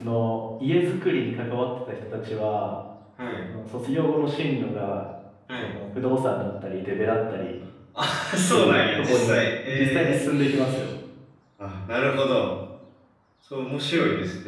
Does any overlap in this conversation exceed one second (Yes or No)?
Yes